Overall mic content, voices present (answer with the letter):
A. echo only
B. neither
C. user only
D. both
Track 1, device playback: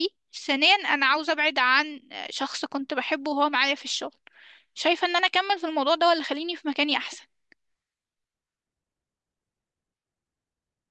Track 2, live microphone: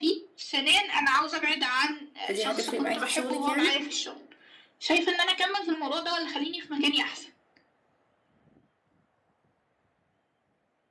D